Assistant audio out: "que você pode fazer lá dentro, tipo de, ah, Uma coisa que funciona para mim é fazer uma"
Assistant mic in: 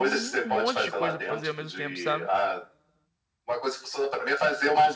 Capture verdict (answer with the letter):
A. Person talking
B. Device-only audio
A